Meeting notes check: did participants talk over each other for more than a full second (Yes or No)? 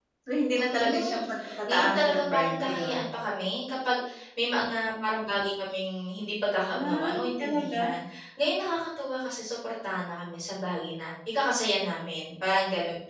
Yes